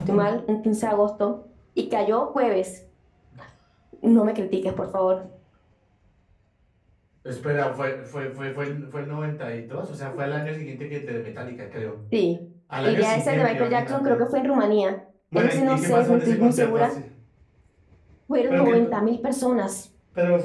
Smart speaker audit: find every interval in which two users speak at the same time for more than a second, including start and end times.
12.8-14.2, 15.3-16.9

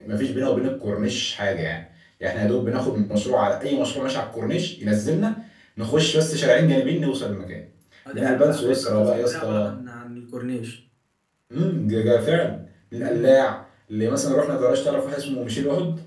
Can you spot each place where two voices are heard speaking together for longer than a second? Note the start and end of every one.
8.1-9.7

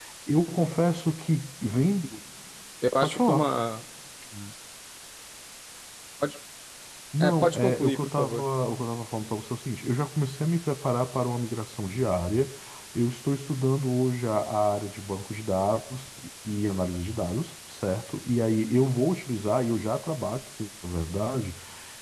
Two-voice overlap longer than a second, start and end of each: 7.2-8.5

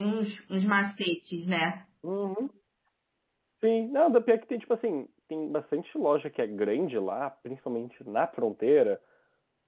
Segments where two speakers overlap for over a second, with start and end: none

